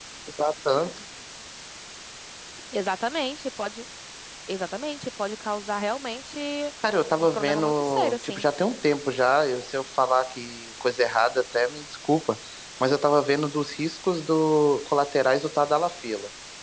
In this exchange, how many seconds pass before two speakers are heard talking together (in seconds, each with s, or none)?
7.2 s